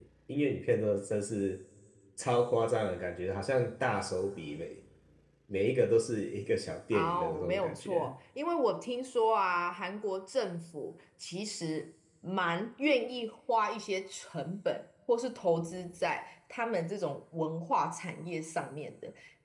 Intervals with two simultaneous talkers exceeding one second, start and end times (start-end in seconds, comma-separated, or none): 6.9-8.1